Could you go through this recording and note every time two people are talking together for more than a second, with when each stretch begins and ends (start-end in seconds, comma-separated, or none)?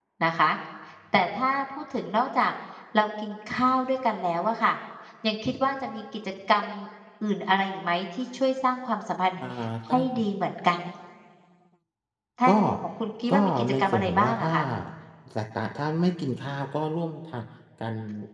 13.3-14.5